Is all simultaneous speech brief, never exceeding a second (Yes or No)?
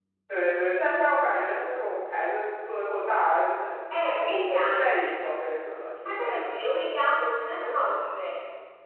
Yes